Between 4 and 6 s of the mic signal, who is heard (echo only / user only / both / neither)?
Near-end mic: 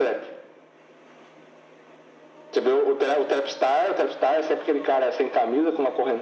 echo only